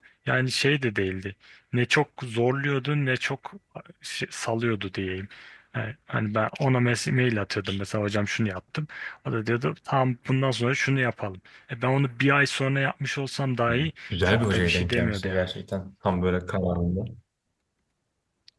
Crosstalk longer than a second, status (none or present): present